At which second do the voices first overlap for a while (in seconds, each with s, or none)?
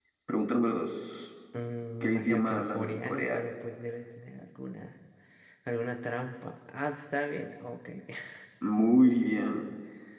2.0 s